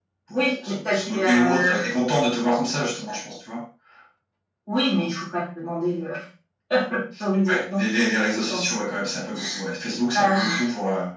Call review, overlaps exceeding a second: present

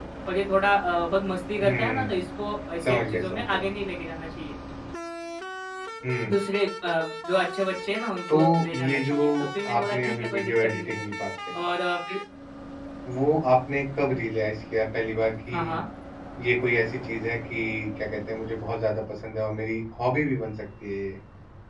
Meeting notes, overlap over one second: present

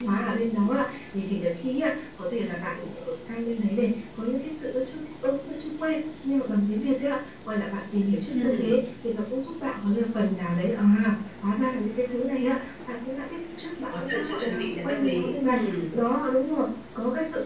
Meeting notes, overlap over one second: present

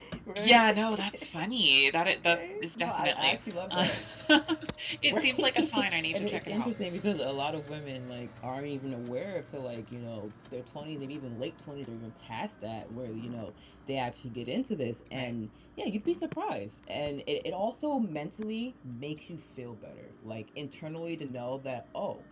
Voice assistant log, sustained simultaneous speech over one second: present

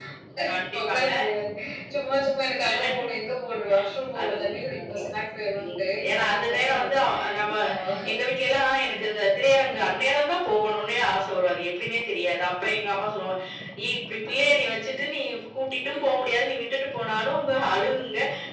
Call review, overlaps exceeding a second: present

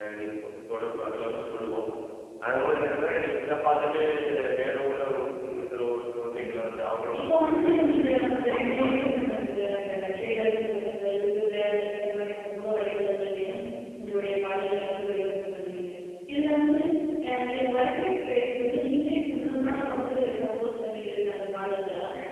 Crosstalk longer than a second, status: present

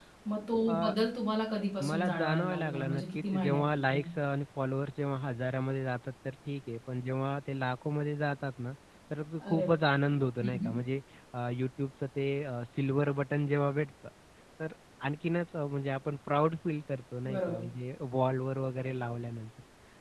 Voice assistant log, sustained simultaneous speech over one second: present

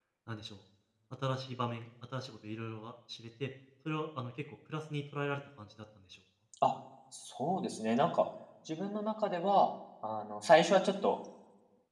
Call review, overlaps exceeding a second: none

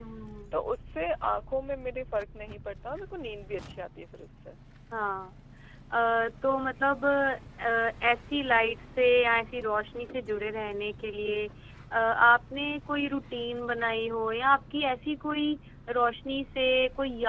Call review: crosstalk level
none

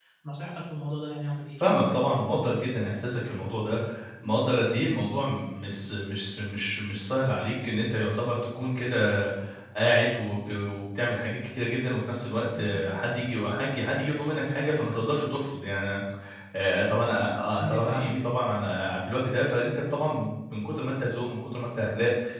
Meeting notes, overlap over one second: none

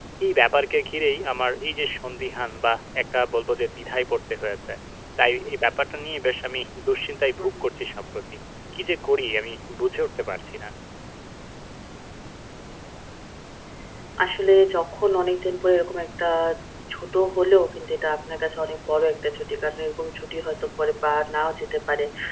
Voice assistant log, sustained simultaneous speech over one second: none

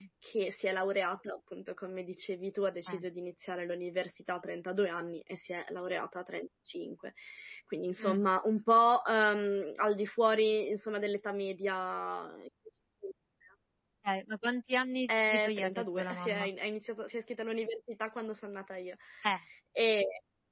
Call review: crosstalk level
present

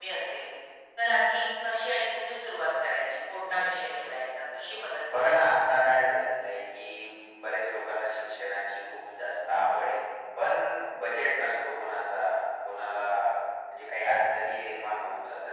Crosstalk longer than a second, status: none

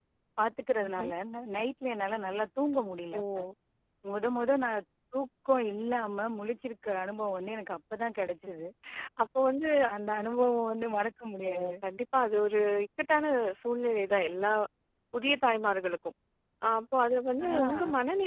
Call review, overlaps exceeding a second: none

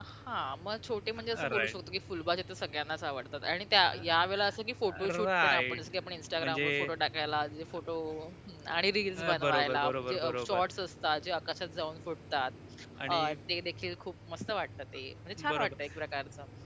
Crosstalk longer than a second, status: present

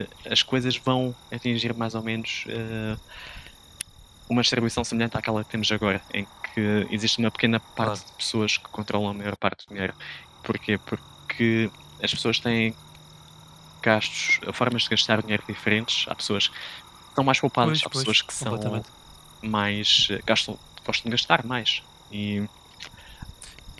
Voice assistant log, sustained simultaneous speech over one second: present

